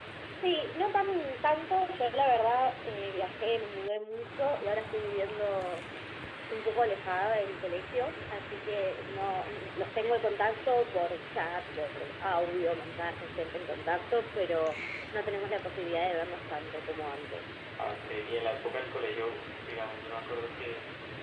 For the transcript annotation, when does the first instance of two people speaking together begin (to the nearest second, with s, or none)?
none